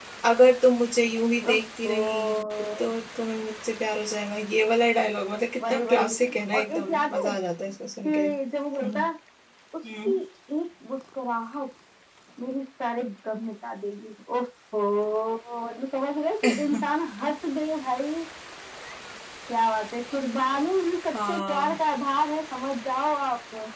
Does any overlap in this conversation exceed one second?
Yes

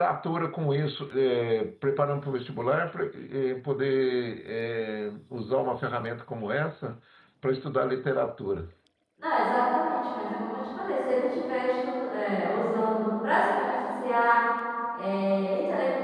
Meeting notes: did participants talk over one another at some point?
No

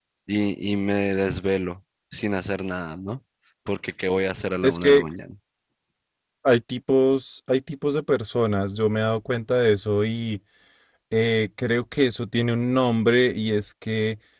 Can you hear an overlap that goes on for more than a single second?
No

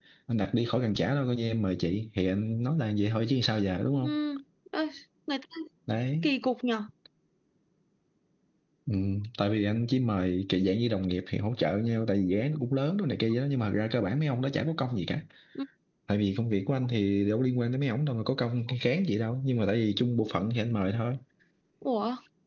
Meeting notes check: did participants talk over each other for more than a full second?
No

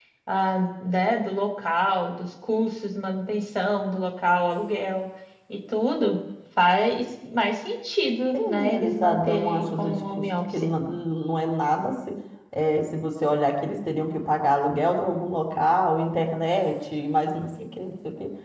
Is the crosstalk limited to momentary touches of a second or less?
No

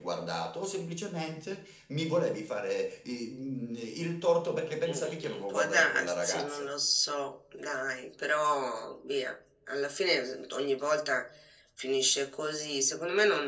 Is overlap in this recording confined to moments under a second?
No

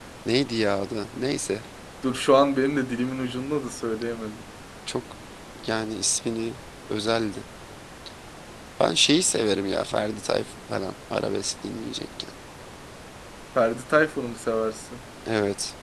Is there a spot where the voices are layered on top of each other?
No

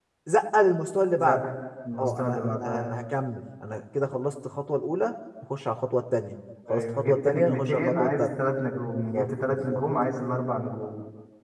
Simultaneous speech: Yes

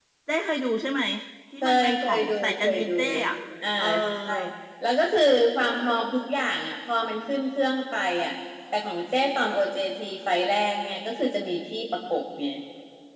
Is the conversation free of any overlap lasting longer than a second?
No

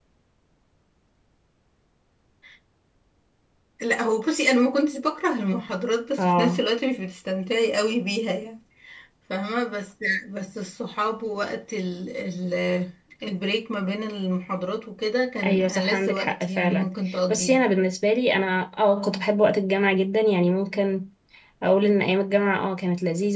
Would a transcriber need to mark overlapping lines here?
Yes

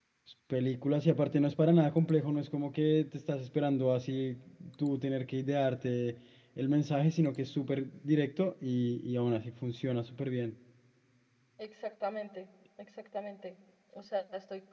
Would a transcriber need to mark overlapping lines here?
No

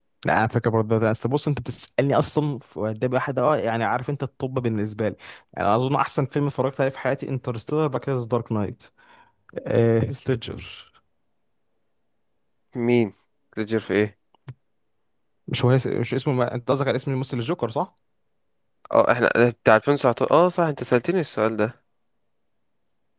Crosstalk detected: No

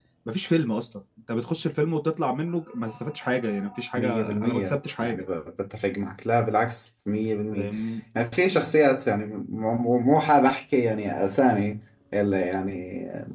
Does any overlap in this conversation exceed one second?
Yes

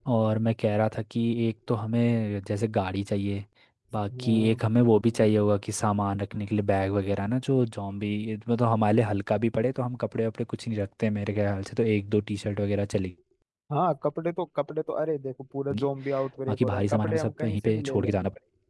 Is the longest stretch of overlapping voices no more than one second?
No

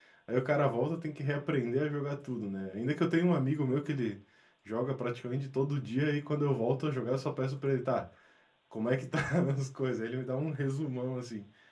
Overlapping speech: No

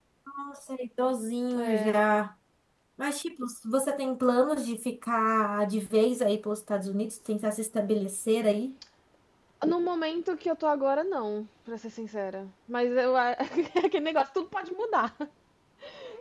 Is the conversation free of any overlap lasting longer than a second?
Yes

